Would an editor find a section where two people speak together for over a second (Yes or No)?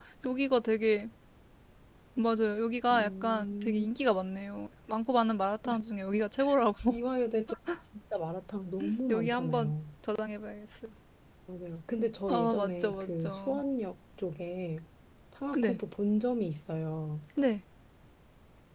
Yes